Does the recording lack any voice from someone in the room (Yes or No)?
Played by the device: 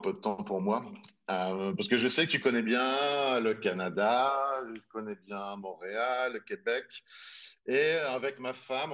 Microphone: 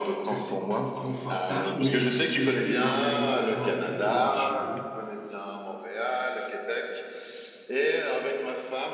No